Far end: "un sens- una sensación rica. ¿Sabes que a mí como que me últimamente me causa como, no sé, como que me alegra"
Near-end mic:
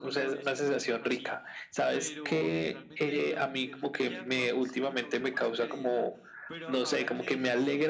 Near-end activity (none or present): present